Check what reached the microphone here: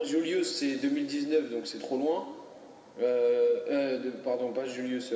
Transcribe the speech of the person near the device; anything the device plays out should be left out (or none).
none